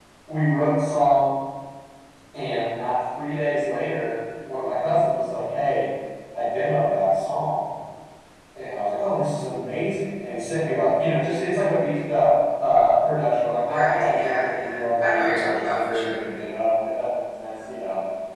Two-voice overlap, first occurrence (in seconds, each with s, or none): 13.6 s